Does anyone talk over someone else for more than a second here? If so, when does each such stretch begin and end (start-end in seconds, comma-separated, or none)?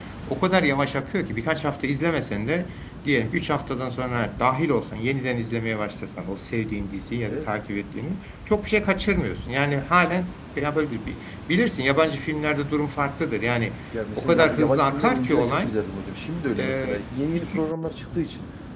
14.2-15.7